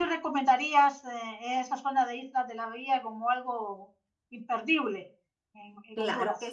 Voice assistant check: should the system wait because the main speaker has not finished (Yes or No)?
No